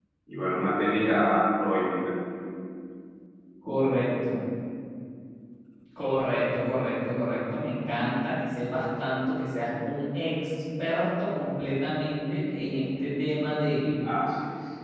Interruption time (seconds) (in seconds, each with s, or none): none